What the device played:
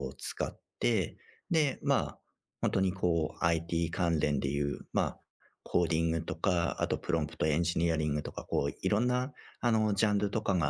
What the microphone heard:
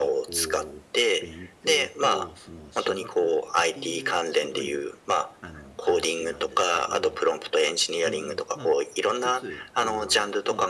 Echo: present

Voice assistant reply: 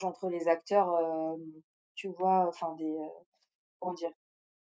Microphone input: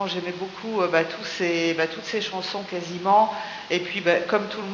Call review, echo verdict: none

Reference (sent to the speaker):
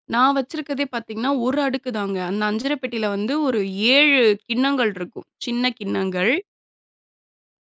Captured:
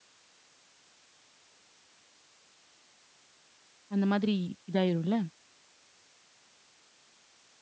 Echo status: none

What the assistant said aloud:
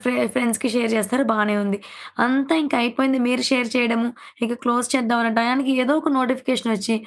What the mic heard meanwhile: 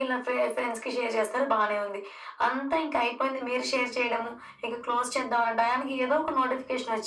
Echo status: present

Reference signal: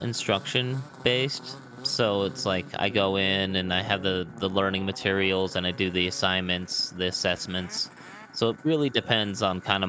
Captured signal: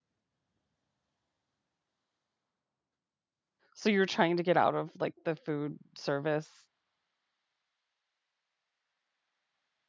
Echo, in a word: none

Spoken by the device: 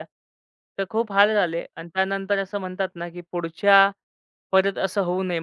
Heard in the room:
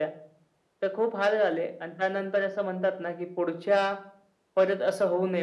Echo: present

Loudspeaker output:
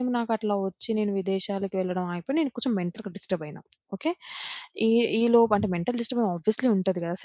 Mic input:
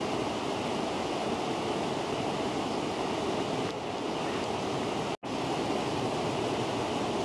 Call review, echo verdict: none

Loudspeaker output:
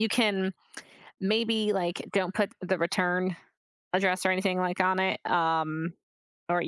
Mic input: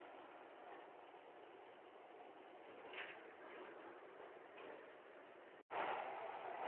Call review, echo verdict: none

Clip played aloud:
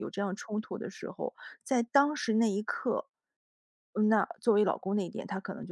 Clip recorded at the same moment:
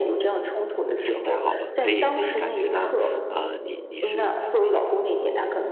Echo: present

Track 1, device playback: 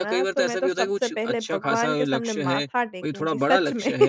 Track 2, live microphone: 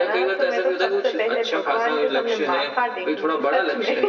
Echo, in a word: present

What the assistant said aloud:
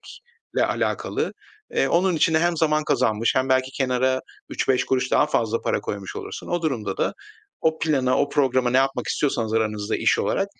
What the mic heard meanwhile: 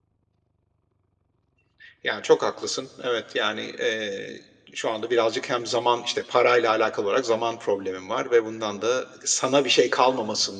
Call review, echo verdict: none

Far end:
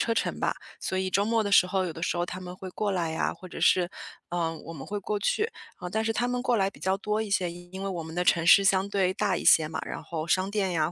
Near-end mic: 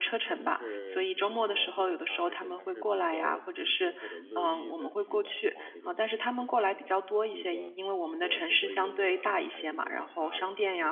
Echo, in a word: present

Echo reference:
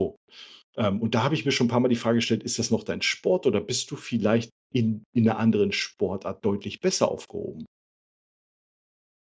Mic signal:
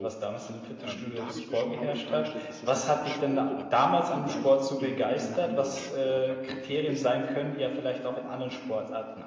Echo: present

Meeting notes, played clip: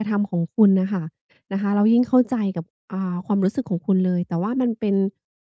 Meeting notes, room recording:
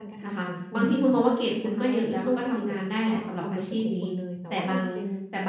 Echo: present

